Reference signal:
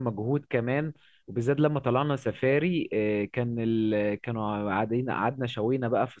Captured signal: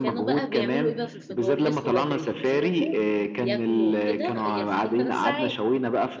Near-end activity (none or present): present